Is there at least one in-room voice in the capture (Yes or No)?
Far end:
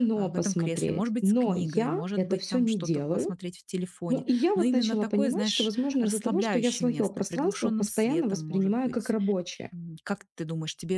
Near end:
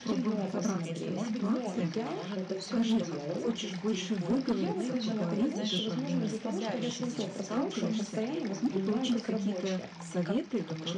Yes